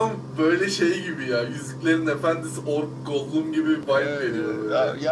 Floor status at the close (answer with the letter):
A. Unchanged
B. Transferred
B